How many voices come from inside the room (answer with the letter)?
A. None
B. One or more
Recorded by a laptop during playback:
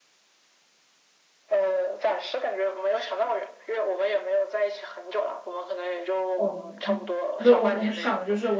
B